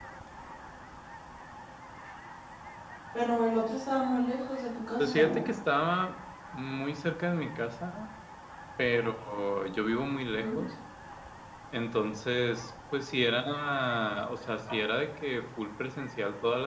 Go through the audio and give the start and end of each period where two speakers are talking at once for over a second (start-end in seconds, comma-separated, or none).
none